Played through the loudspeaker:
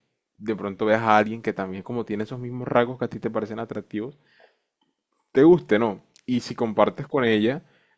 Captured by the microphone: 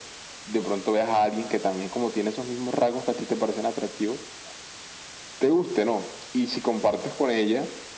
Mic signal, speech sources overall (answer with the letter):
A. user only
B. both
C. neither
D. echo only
D